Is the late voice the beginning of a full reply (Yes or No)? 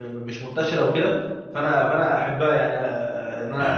No